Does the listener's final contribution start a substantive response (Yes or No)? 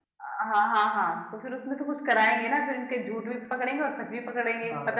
Yes